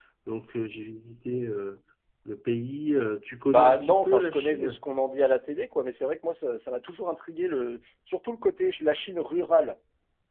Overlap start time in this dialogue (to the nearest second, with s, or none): 3 s